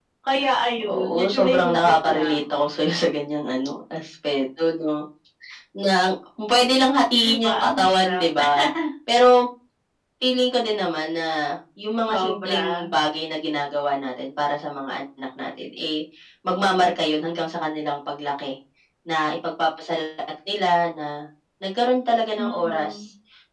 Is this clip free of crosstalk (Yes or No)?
No